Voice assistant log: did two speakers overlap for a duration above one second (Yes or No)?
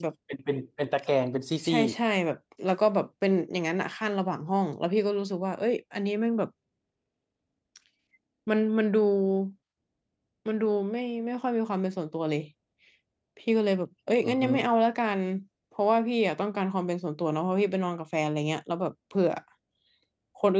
No